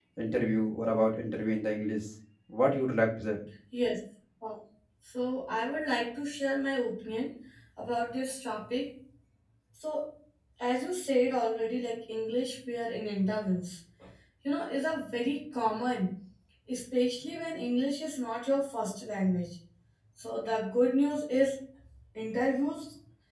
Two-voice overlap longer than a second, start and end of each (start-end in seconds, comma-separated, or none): none